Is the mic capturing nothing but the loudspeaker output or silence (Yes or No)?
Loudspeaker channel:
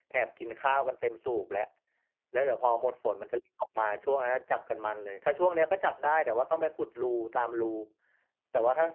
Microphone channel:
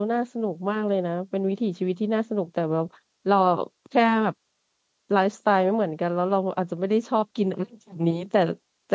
No